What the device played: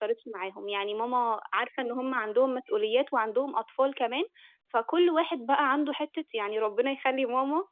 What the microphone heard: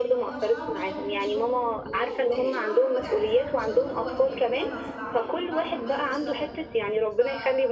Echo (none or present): present